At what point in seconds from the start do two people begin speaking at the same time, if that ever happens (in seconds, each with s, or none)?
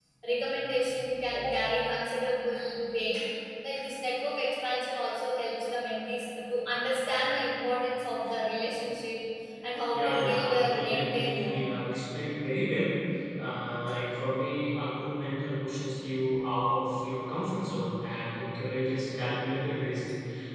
9.9 s